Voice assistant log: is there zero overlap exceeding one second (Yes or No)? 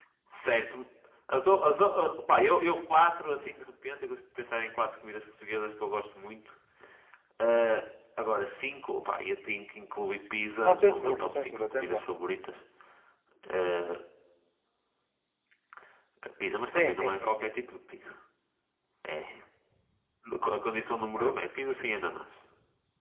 No